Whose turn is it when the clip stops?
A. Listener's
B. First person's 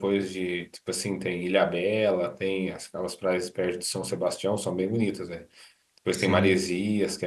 B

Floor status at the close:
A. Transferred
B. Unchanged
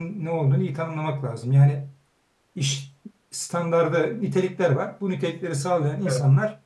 B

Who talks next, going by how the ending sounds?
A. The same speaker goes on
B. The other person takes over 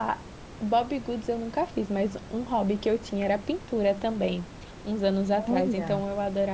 A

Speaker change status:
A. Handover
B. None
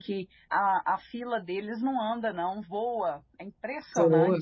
A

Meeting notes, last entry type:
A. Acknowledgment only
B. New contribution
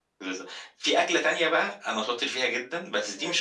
A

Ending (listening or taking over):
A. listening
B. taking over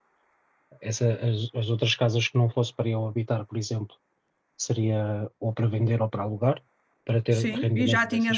B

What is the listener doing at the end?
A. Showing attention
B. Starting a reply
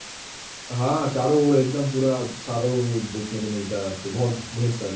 B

